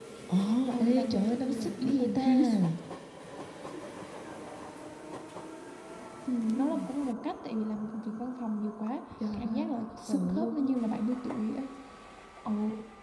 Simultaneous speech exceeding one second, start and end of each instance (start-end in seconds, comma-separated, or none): 0.7-2.3, 9.3-10.8